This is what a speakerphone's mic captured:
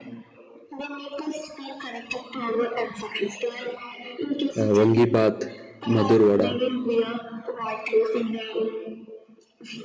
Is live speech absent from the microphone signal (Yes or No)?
No